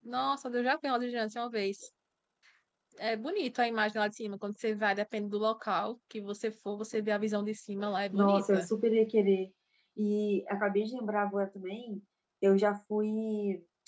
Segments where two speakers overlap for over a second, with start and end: none

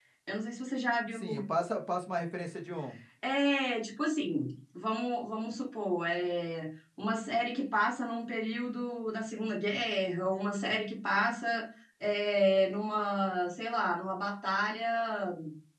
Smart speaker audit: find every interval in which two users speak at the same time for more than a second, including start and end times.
none

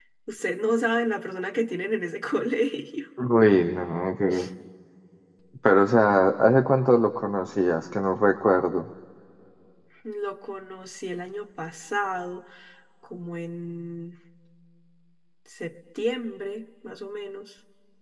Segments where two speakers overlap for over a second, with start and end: none

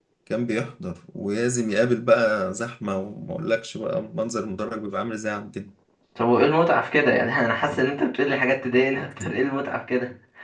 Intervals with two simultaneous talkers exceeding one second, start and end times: none

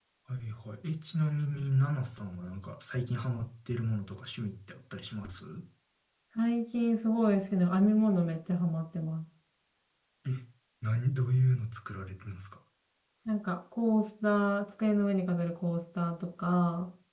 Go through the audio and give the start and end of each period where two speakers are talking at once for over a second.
none

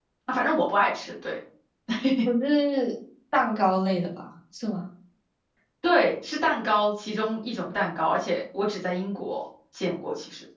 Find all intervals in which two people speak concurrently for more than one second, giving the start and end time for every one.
none

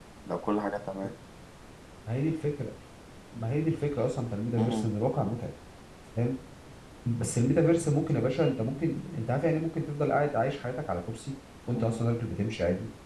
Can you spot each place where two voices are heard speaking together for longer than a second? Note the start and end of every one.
none

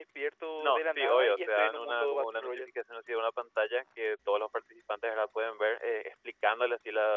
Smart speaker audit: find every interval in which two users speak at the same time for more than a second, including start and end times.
0.6-2.7

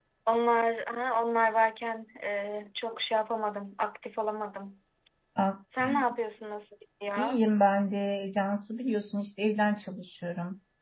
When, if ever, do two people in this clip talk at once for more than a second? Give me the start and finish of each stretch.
none

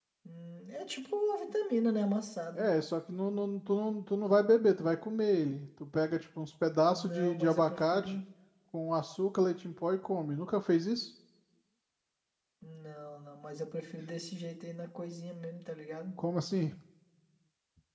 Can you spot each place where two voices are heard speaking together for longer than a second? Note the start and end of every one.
6.9-8.2

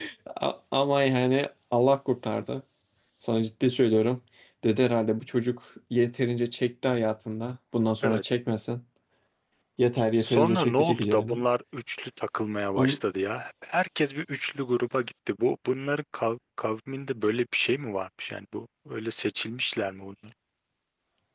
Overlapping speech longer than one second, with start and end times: 10.2-11.4

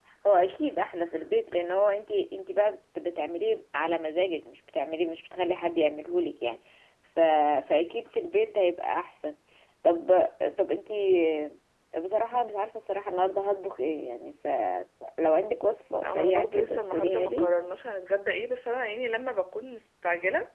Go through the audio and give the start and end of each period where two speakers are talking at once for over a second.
16.0-17.5

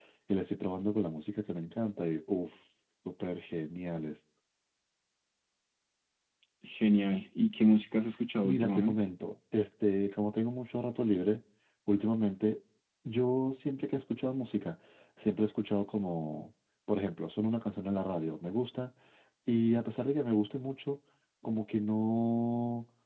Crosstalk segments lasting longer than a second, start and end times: none

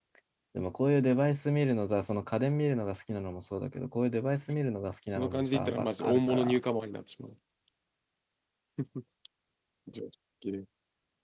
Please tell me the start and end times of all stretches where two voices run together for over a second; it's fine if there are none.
5.2-6.6

